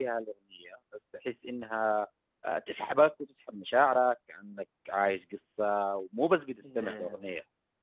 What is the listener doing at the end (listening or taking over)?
listening